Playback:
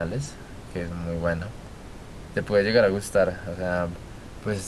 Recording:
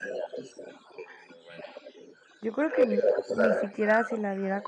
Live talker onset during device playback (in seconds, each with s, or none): 2.4 s